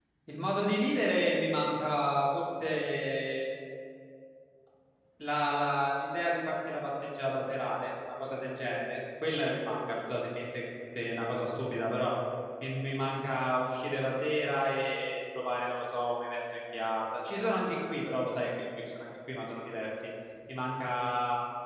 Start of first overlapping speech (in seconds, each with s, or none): none